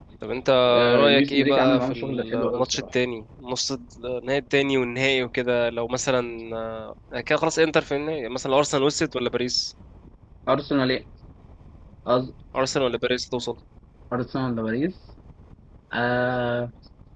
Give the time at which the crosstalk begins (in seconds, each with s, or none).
0.9 s